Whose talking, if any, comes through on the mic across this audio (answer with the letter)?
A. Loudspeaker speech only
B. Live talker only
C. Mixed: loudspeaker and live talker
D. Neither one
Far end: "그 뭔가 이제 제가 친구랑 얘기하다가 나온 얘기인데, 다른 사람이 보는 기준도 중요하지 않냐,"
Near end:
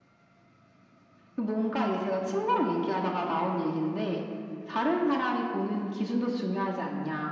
A